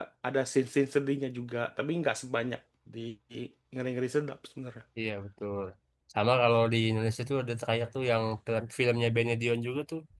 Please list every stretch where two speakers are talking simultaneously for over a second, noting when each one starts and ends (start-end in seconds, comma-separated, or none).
none